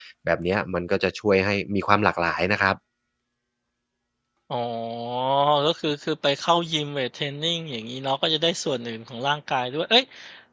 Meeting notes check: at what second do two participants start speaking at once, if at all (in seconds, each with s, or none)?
none